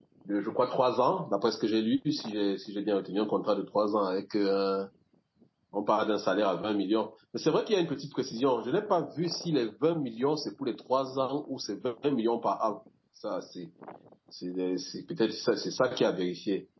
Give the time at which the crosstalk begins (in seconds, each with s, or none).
none